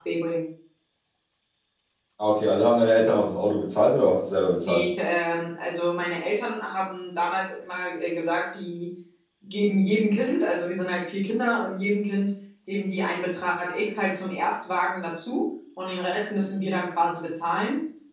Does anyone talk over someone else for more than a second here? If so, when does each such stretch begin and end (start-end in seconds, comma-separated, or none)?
none